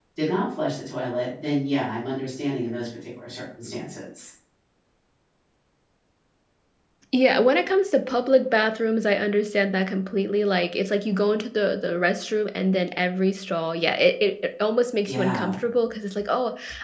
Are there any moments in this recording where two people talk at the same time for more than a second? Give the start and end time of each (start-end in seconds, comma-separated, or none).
none